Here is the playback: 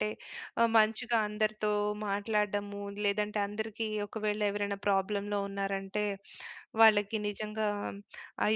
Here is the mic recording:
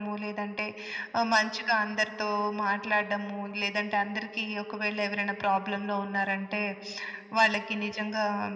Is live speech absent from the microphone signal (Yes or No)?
Yes